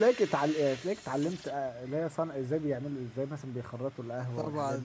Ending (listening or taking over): taking over